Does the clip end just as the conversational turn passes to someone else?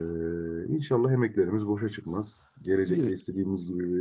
No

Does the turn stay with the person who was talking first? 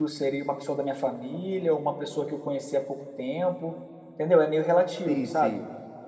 No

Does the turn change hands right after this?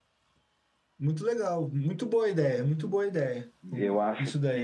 Yes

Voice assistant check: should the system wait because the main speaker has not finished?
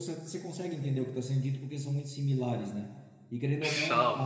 Yes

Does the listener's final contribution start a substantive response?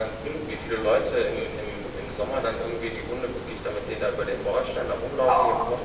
No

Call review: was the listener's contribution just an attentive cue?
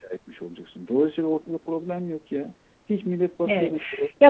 No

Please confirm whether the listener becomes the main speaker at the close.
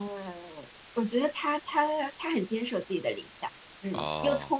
No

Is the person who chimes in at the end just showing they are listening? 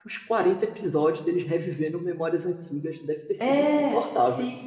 No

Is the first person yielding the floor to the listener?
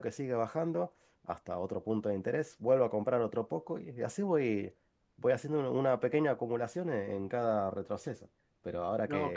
No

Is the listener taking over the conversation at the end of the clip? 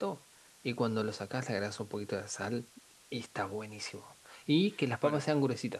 No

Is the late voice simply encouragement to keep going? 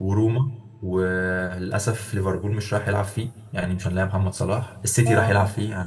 Yes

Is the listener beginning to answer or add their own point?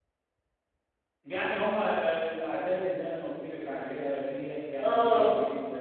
No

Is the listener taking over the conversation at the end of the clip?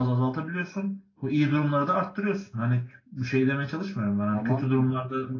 No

